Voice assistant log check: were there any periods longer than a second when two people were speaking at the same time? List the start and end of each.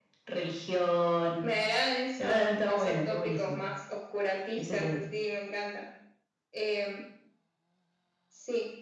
2.2-3.6

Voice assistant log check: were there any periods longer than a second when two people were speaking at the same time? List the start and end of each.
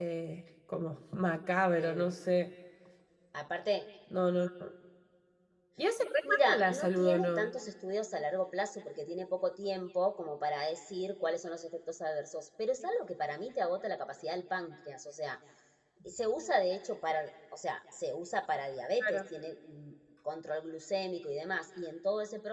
6.3-7.5

